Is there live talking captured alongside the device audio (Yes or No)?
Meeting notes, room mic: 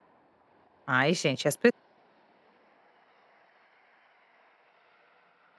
Yes